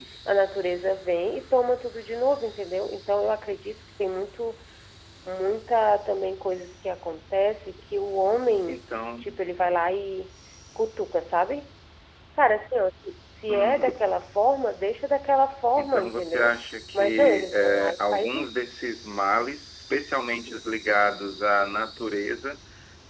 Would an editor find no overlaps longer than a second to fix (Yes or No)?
No